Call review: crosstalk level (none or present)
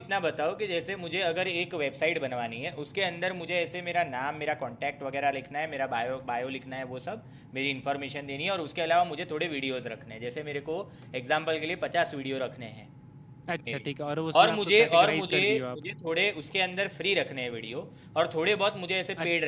present